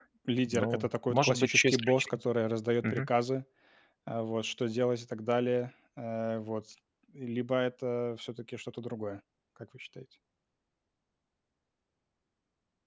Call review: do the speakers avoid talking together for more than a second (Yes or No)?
No